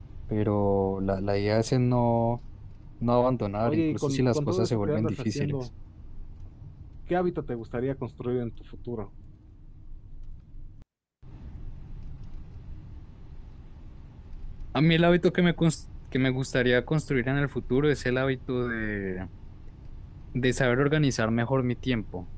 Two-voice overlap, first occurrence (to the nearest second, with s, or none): 4 s